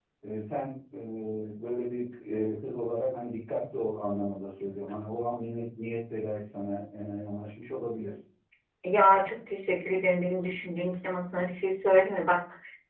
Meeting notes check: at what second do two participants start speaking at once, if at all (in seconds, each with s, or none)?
none